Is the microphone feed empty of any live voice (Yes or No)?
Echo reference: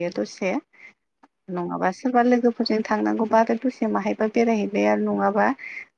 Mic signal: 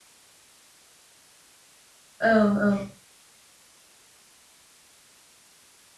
No